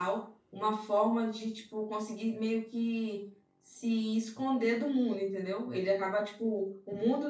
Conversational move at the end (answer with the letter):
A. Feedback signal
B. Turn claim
A